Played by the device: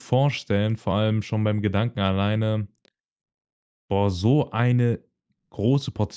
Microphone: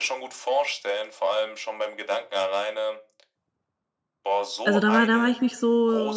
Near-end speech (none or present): present